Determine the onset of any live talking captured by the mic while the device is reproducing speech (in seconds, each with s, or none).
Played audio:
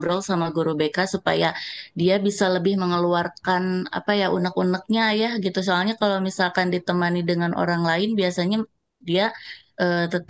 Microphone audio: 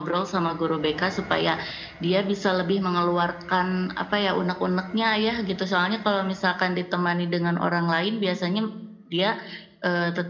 none